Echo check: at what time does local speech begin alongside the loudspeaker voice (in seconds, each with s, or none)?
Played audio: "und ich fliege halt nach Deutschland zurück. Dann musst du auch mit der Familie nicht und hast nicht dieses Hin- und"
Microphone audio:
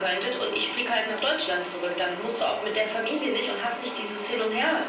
none